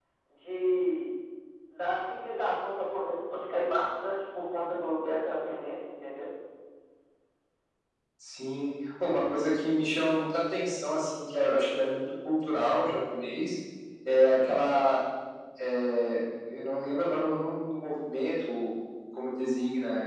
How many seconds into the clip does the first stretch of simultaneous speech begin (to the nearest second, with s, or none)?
none